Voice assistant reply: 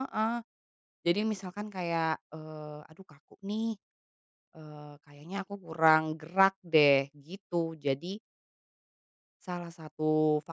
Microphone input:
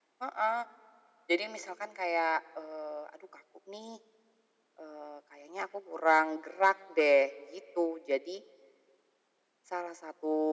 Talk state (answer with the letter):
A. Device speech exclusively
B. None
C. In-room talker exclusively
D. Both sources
A